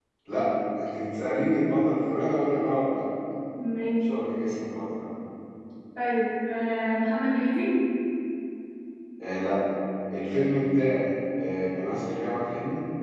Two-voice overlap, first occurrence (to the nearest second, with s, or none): none